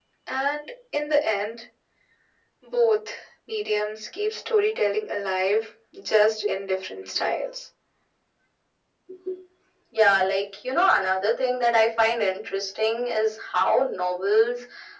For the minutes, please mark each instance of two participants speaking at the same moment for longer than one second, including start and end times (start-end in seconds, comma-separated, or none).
none